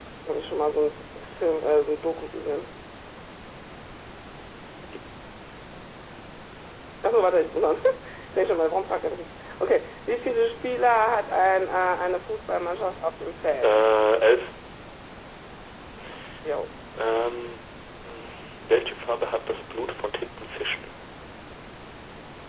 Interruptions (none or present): none